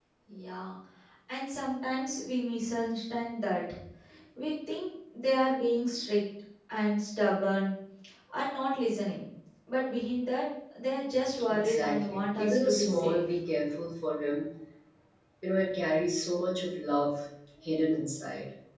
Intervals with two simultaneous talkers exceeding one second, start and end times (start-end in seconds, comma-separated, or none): 11.5-13.2